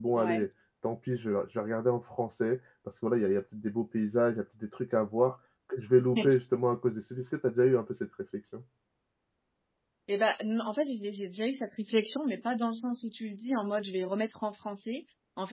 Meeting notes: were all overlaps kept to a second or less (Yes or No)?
Yes